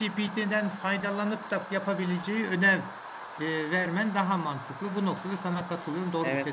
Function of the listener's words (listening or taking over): taking over